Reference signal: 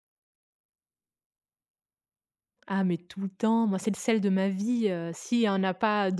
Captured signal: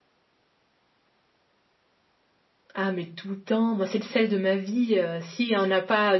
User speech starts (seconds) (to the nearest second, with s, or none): none